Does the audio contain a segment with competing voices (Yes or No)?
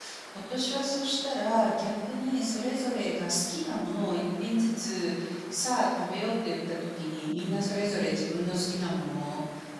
No